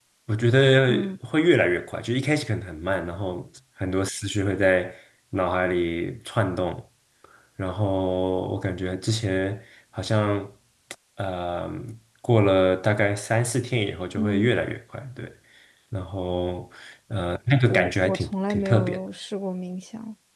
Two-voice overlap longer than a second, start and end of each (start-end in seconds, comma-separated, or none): 17.6-19.0